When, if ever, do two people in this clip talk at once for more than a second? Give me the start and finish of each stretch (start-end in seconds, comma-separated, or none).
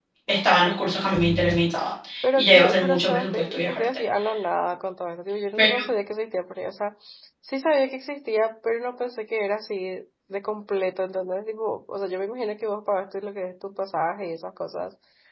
2.4-4.0